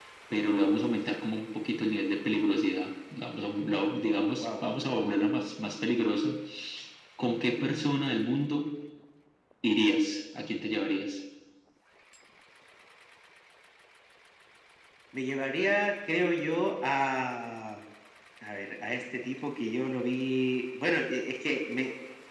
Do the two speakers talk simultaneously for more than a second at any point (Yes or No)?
No